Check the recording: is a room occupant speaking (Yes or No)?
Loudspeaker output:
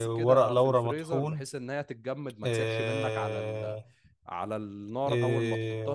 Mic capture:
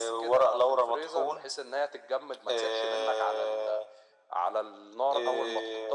No